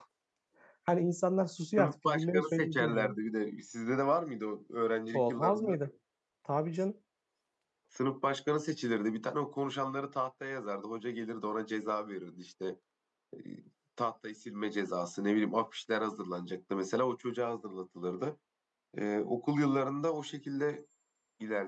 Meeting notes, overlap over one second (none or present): present